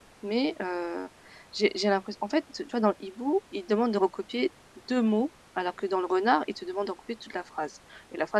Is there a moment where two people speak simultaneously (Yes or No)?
No